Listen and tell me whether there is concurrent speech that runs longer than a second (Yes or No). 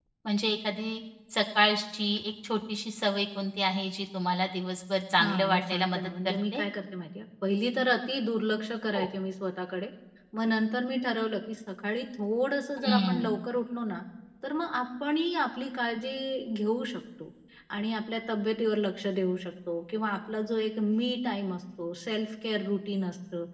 Yes